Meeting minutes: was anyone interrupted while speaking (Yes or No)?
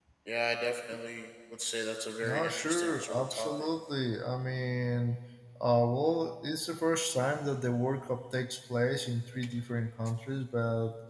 Yes